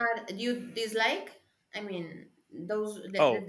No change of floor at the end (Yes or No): Yes